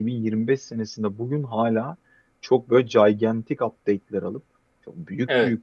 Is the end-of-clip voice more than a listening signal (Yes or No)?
No